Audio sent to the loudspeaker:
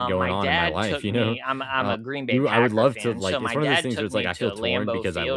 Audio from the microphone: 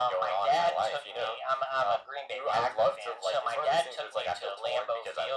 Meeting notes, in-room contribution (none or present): none